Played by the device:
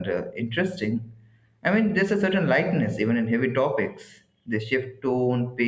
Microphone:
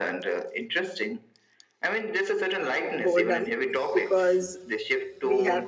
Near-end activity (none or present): present